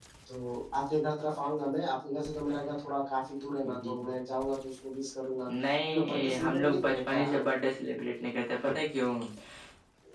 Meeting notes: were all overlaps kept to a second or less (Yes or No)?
No